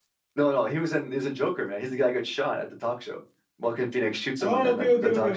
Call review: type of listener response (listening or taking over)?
taking over